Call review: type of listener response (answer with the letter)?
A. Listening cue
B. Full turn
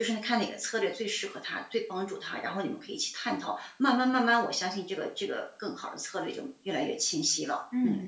B